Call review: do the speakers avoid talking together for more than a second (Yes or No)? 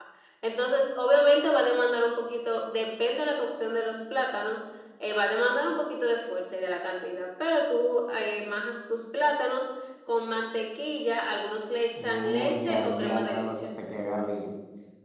No